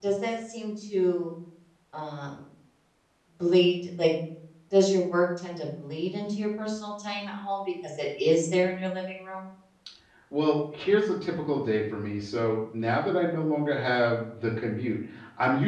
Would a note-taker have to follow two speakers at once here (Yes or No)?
No